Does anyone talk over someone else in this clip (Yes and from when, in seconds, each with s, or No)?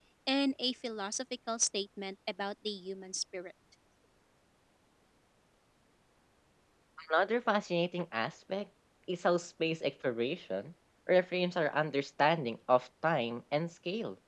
No